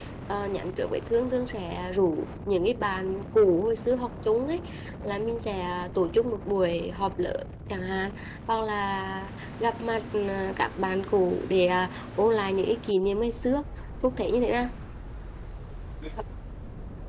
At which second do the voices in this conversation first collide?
none

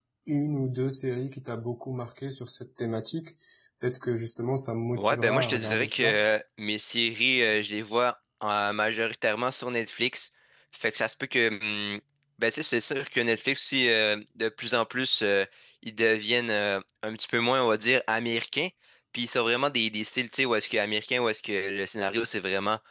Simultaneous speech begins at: 5.0 s

